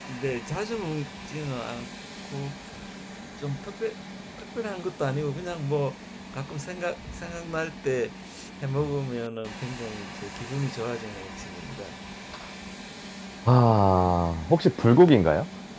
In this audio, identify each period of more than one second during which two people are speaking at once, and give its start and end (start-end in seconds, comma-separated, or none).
none